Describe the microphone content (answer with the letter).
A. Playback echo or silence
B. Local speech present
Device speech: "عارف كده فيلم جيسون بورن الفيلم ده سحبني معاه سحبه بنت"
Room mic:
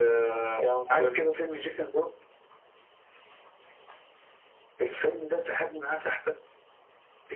B